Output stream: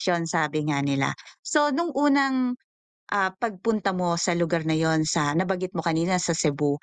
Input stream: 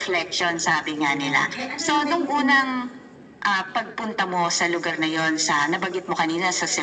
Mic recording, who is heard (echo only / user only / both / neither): both